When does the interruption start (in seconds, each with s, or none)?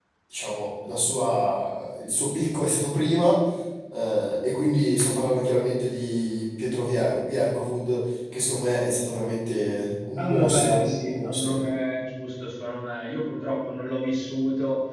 10.2 s